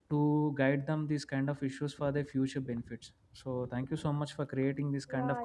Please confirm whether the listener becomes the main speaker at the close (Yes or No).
Yes